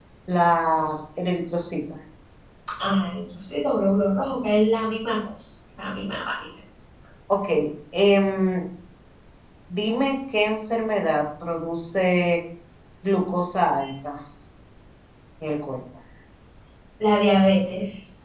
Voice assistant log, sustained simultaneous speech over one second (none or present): none